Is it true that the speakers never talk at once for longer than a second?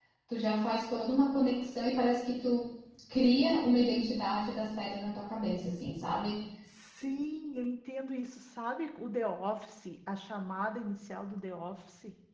Yes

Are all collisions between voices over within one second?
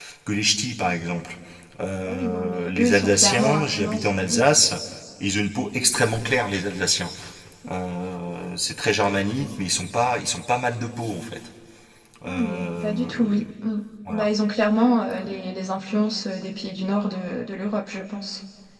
No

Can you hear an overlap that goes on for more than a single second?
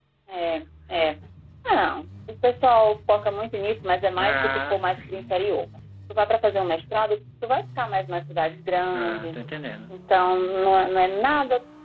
Yes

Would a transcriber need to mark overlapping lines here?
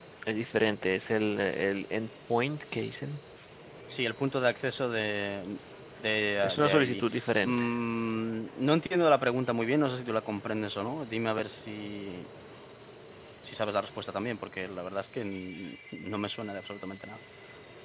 Yes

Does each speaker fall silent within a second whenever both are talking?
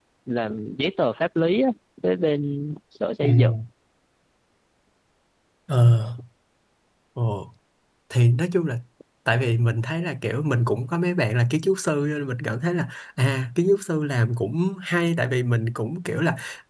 Yes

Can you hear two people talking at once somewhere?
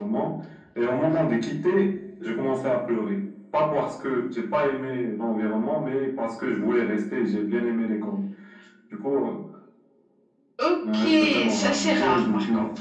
Yes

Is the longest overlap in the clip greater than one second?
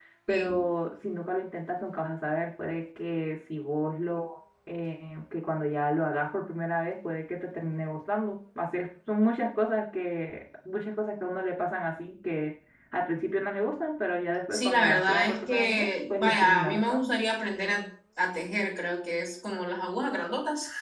Yes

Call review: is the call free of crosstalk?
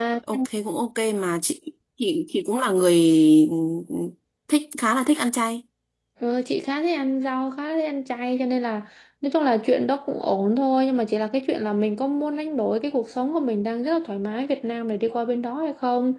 Yes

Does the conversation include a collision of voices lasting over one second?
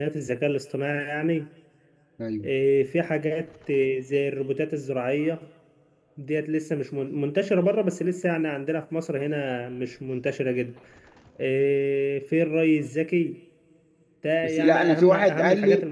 Yes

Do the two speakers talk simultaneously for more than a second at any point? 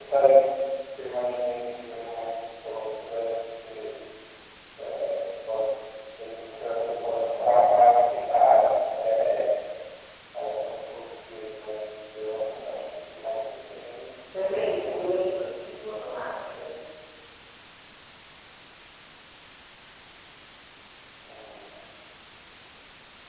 Yes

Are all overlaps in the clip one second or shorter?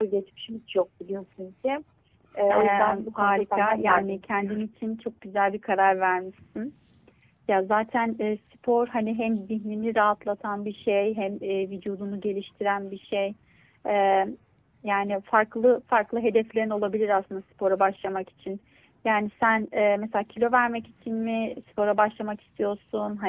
No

